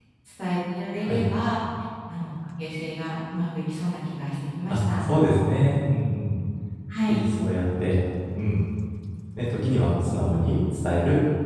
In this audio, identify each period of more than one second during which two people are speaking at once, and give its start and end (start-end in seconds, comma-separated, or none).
none